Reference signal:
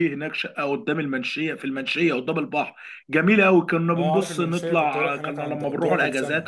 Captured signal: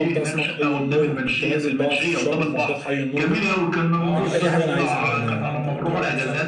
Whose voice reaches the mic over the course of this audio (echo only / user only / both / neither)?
both